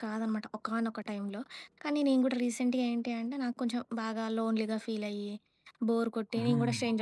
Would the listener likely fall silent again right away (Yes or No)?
Yes